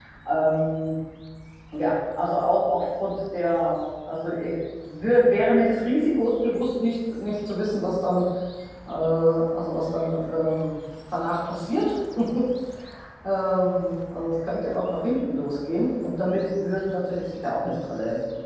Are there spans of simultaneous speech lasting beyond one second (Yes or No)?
No